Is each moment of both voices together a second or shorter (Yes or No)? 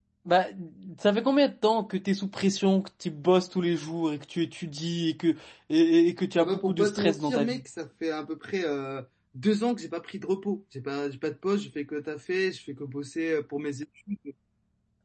No